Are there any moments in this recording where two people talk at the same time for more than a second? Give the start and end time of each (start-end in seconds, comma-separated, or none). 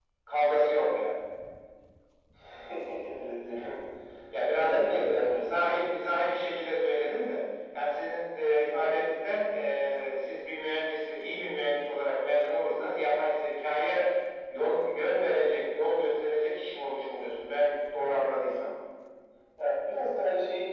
4.5-5.8